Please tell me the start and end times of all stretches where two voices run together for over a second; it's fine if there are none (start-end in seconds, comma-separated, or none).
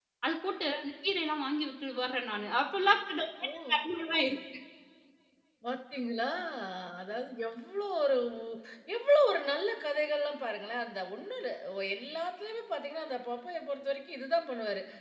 none